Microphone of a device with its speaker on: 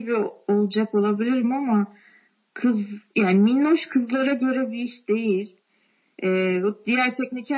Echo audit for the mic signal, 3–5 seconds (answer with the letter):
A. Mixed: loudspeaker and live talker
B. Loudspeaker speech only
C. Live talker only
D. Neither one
B